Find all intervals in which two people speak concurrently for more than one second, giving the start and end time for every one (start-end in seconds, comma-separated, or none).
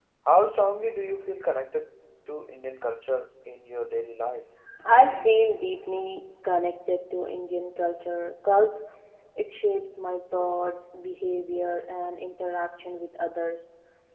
none